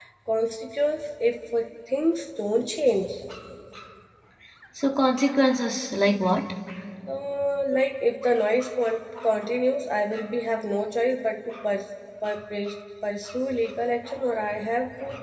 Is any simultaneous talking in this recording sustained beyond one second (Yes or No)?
No